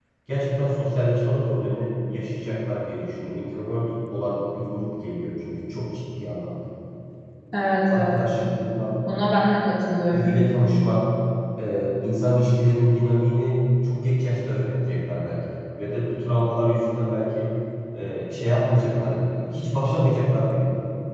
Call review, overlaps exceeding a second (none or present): none